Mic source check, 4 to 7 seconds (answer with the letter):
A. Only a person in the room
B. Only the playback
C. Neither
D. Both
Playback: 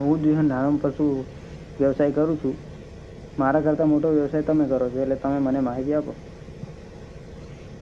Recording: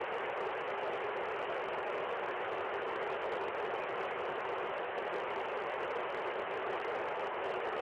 C